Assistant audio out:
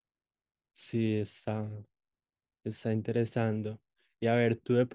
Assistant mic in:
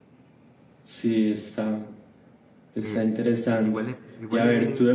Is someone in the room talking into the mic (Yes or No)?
Yes